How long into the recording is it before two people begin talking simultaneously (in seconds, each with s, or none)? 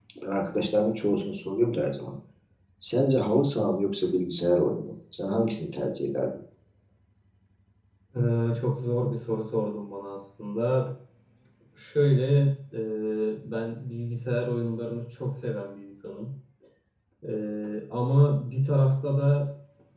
none